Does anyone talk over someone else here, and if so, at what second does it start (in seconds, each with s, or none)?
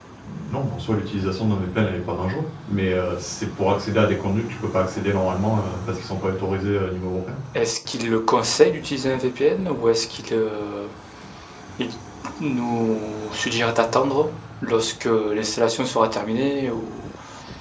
none